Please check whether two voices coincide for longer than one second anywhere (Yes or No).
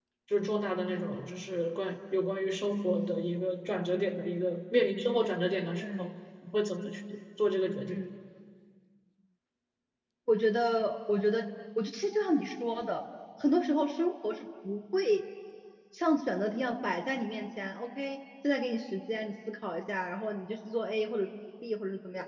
No